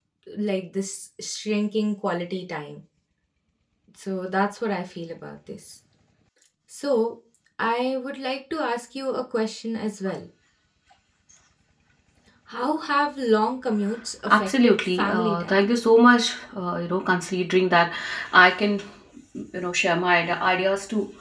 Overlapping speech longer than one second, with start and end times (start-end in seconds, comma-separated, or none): 14.3-15.6